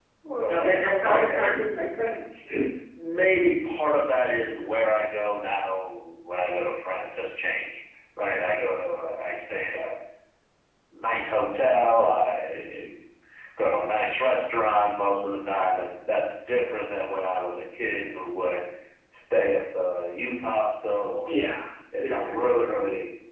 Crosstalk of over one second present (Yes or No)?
Yes